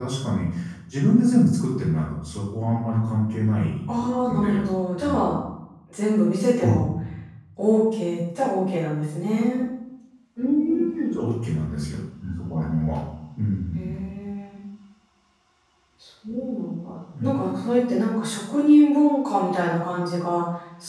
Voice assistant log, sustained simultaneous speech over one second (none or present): none